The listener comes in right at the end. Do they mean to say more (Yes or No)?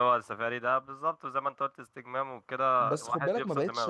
Yes